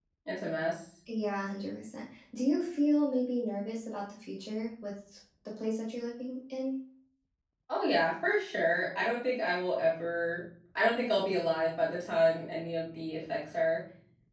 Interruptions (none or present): none